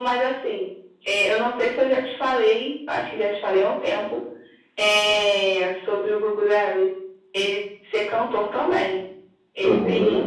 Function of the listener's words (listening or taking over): listening